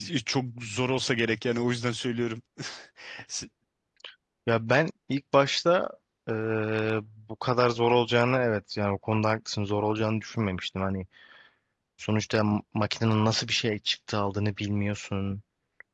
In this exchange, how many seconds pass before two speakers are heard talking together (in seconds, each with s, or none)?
none